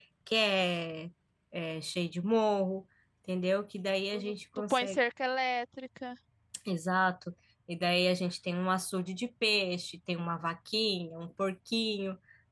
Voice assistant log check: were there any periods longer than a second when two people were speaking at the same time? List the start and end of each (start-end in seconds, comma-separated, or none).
none